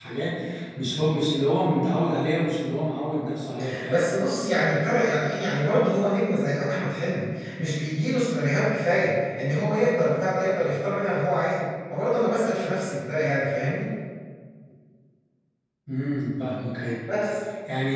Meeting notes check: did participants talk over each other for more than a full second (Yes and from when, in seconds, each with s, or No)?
No